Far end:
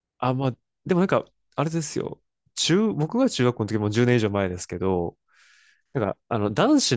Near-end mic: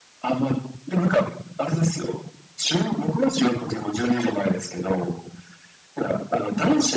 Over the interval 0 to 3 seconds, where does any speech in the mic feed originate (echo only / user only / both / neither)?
echo only